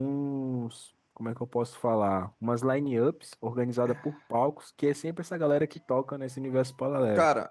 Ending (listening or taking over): taking over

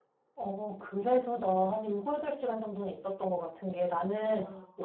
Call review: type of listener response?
listening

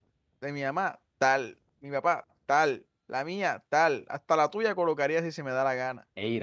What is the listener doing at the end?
listening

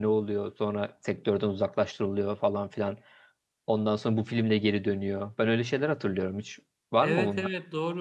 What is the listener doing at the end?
taking over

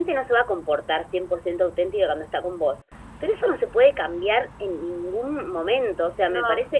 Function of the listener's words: listening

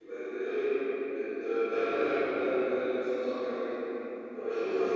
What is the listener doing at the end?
listening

